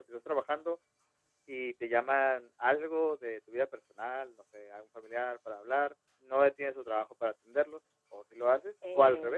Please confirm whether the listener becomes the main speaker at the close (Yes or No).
Yes